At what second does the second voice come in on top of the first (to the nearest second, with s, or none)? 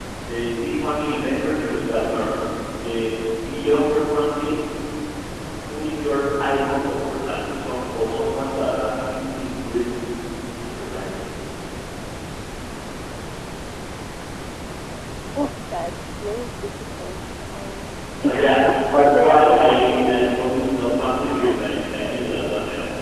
18 s